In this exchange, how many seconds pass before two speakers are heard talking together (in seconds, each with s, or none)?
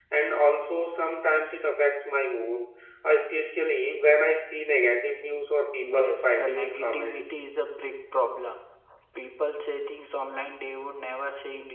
5.8 s